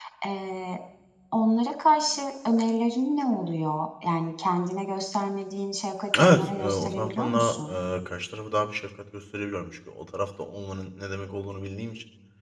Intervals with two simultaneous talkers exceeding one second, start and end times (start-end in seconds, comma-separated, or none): 6.2-7.8